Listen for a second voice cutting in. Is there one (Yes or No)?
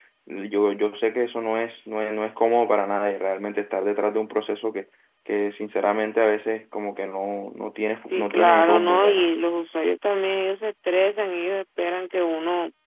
Yes